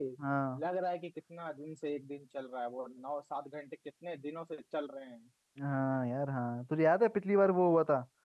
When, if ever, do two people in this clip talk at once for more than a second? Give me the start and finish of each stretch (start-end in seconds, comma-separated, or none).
none